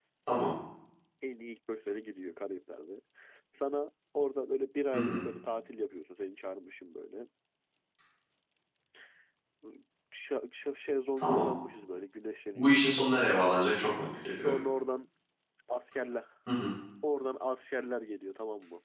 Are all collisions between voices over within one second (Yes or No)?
Yes